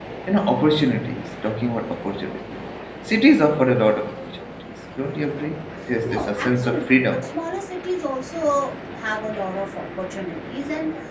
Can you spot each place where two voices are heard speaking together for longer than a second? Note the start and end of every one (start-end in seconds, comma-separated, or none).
6.0-7.2